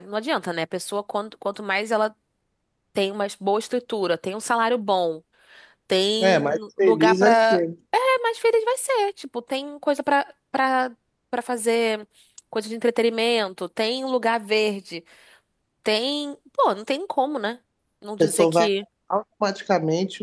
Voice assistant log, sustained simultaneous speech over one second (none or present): present